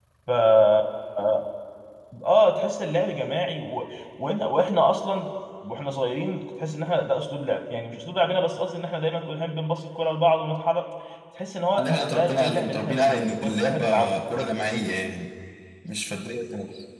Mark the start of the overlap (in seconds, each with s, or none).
11.8 s